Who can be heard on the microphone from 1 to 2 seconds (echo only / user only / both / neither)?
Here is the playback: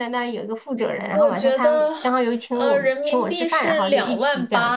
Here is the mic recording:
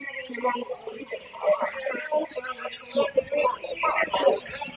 echo only